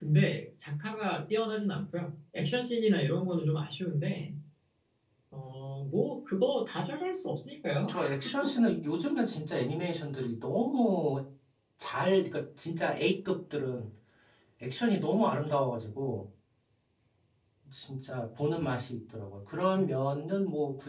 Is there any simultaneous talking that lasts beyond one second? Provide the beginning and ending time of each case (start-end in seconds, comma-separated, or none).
none